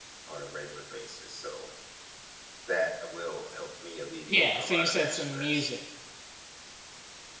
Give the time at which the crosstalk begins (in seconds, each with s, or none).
4.3 s